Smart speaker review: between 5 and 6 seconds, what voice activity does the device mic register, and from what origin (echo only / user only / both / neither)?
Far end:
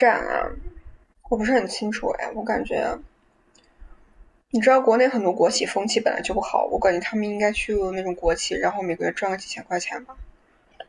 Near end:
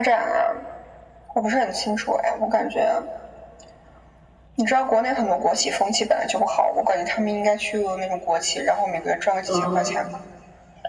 echo only